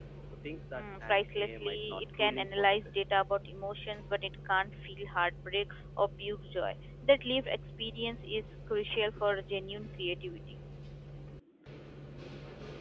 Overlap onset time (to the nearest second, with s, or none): 1 s